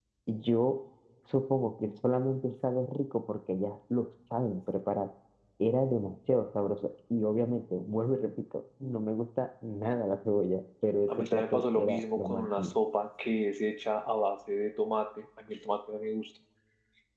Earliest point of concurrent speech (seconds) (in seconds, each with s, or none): 11.1 s